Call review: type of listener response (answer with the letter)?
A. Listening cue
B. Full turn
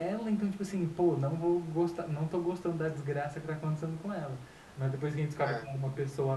A